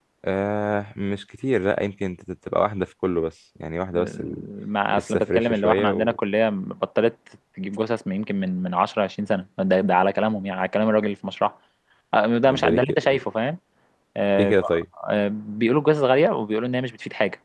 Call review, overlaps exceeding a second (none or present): present